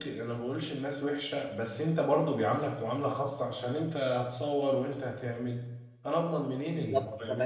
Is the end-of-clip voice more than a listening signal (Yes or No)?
Yes